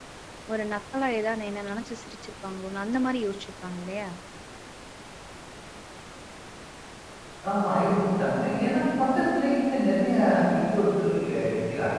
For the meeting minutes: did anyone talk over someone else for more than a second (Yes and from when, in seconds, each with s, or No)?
No